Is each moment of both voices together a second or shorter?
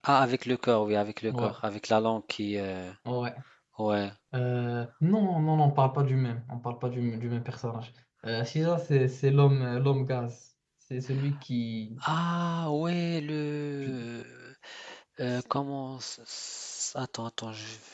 Yes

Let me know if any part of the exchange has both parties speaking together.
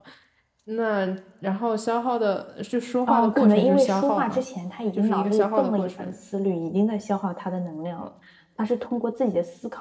Yes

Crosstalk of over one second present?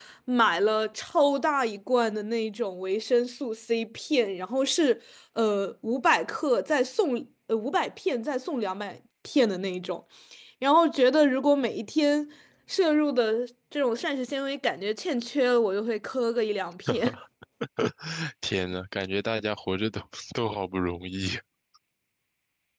No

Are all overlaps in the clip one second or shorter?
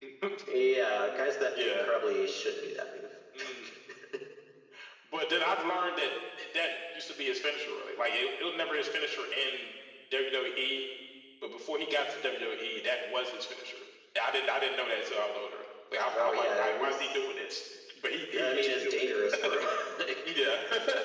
No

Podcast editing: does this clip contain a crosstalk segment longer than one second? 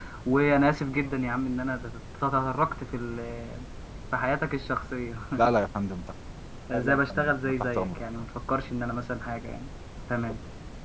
Yes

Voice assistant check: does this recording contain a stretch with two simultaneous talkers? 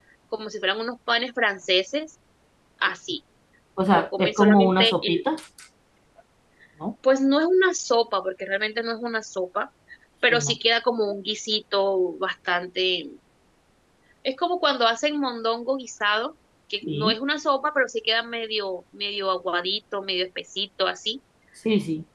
Yes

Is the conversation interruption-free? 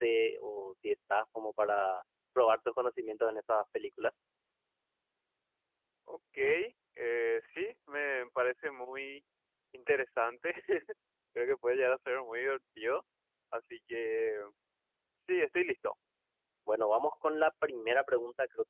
Yes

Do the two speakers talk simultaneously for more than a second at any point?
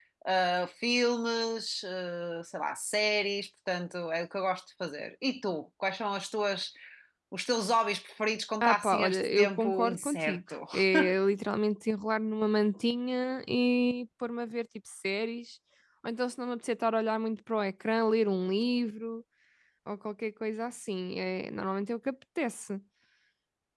Yes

